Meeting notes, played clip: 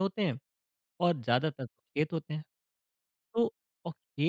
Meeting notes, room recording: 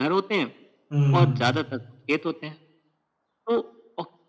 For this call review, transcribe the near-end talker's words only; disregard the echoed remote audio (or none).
हुँ,